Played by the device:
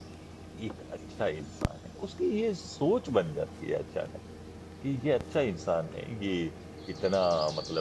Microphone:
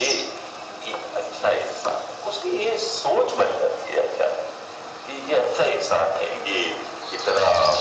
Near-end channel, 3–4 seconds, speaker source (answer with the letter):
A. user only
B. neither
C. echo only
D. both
C